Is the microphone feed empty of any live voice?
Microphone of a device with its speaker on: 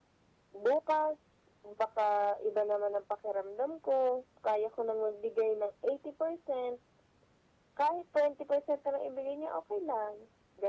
Yes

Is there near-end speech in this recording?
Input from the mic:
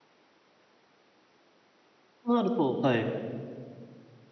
Yes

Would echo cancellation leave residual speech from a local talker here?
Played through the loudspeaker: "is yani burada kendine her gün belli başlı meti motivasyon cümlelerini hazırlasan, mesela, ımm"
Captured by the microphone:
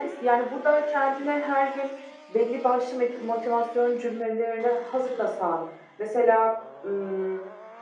No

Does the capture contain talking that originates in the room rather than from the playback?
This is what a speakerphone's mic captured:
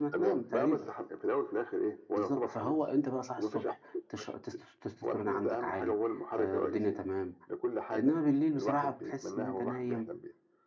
Yes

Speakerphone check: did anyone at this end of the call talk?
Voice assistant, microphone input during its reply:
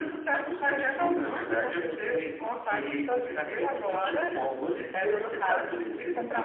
No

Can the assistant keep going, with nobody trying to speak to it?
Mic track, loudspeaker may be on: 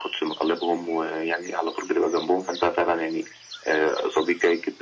Yes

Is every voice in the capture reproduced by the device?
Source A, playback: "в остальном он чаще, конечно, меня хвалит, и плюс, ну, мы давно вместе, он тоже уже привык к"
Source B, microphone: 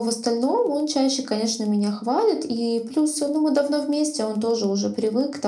Yes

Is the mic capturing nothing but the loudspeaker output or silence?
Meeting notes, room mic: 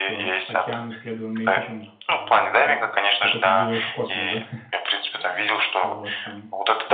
No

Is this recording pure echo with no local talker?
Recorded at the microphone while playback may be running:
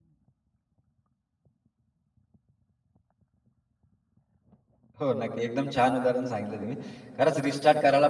No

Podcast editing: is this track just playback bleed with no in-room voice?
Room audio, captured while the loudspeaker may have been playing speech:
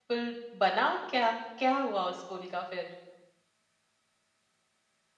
No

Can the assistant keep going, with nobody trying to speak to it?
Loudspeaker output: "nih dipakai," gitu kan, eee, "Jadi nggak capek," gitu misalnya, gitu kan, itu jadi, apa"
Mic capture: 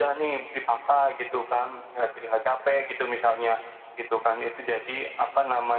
Yes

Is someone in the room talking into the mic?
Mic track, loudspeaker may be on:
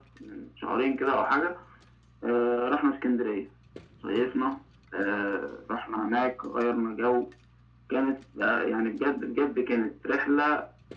No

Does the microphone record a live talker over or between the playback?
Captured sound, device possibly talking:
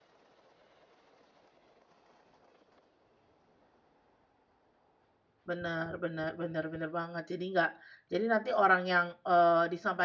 Yes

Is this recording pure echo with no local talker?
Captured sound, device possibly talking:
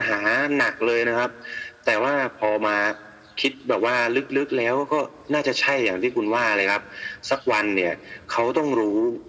Yes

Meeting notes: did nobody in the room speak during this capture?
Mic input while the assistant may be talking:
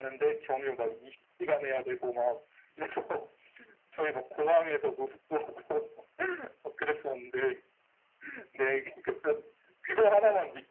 Yes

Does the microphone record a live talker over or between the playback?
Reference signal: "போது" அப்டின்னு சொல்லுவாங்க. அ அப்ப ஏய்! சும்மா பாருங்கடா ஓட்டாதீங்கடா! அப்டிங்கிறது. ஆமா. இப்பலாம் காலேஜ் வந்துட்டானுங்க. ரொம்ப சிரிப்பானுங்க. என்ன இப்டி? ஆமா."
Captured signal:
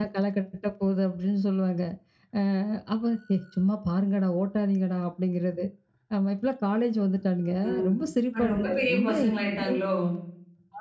Yes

